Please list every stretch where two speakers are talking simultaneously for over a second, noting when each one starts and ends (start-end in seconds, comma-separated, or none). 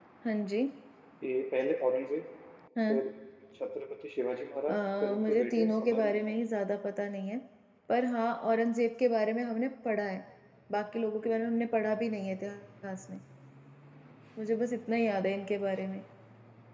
4.7-6.4